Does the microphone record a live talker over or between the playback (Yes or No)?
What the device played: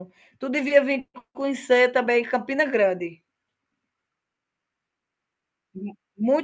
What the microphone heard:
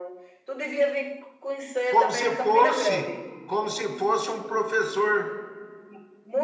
Yes